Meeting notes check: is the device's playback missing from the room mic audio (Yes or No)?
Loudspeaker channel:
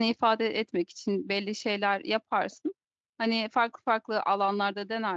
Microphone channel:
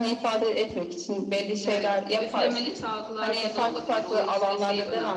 No